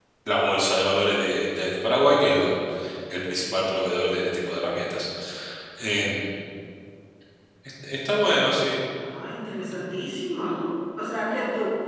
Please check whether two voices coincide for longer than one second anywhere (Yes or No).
No